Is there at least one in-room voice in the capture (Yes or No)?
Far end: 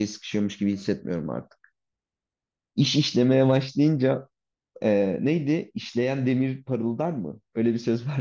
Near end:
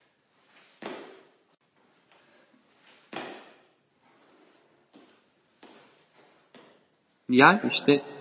Yes